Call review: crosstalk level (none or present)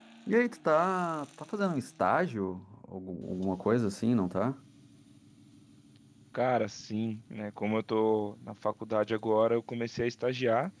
none